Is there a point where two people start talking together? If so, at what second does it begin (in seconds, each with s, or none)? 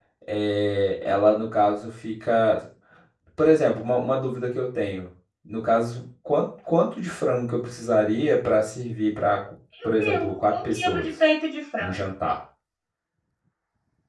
10.0 s